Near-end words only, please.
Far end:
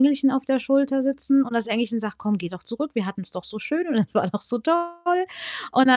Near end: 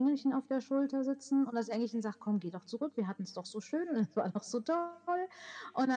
none

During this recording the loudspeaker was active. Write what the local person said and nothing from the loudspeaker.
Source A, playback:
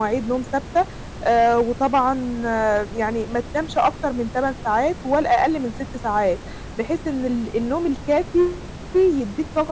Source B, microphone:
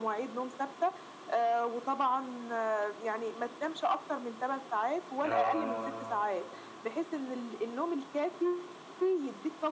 آه.

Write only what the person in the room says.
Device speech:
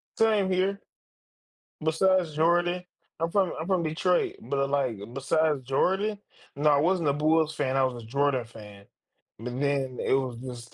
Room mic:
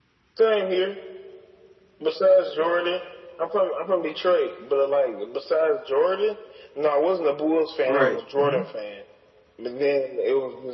Right, mhm.

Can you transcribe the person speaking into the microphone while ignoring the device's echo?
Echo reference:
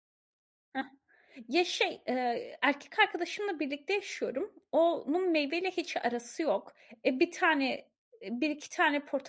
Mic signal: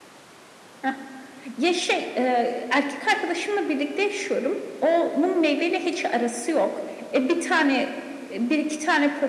none

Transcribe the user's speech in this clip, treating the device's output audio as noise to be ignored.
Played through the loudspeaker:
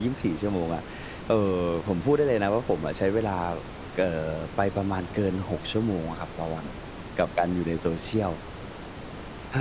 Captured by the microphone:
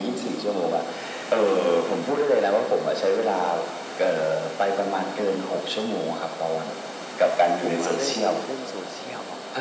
ผมอะเริ่มเล่น Social อะ

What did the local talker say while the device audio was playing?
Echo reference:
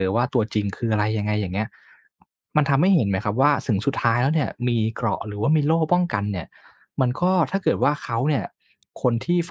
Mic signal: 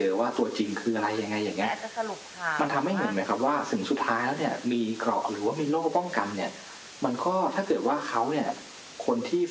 เหมือนอาจจะสรุปข่าว หรือว่า

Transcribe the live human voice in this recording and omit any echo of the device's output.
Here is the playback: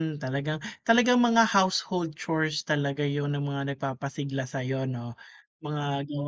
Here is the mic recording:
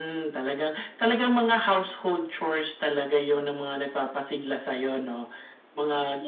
none

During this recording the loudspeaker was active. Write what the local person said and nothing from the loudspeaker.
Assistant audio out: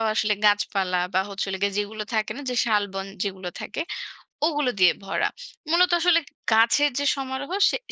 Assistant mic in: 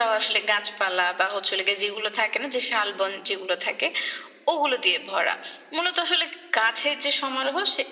none

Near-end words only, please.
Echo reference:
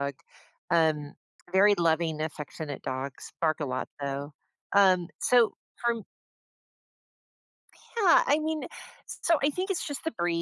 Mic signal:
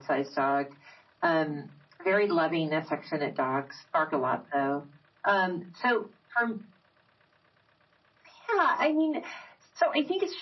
none

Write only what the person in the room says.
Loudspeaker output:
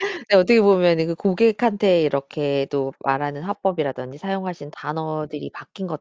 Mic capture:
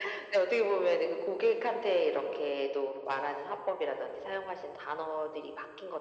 none

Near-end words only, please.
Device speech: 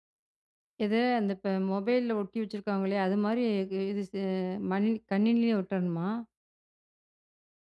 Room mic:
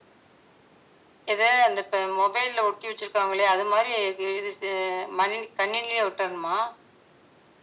none

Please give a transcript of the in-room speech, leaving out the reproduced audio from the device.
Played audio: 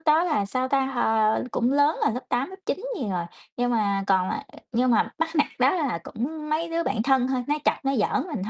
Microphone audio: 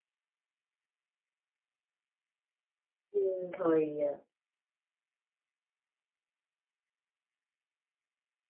ừm, thời, ờ

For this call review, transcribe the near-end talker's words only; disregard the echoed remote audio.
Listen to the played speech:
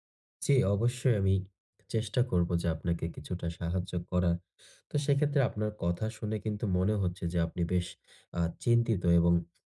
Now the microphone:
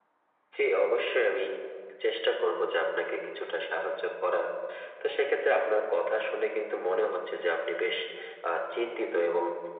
none

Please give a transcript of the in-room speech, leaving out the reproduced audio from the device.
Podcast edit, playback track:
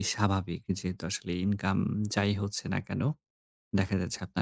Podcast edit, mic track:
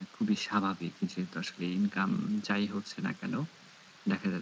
none

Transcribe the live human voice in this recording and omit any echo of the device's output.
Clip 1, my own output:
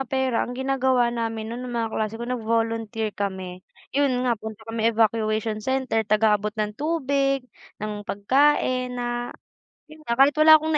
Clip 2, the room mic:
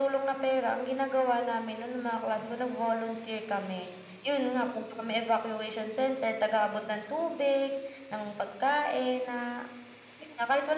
none

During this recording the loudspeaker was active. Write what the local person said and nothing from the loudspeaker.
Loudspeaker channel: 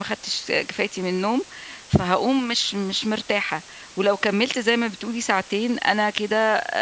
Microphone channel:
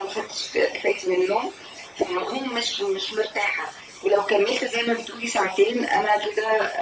none

